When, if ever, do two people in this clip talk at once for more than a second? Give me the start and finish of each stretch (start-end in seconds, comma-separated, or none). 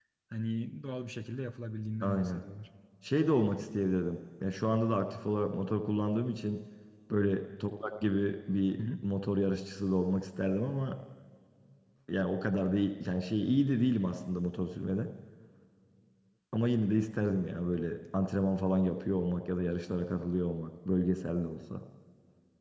none